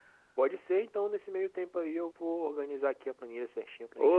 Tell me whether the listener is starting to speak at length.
Yes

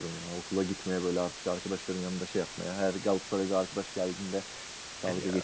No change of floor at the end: Yes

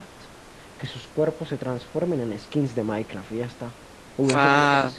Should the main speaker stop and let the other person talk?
Yes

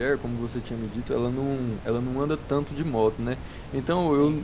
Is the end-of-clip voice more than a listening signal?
No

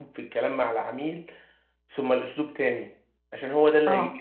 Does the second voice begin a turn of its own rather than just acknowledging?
No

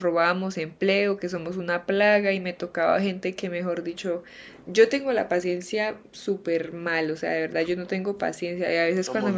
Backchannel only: Yes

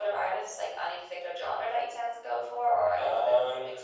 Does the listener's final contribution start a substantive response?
Yes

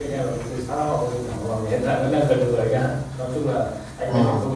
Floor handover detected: No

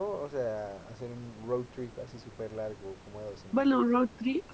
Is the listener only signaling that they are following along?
No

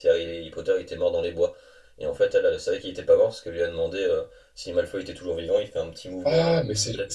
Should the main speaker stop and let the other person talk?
Yes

